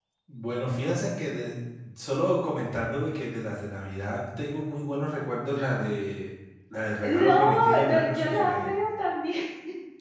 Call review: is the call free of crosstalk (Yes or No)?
No